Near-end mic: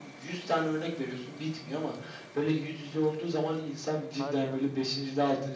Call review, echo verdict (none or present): present